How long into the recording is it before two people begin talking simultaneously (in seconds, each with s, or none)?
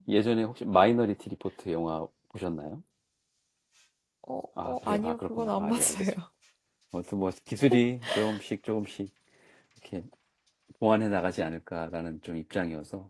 4.6 s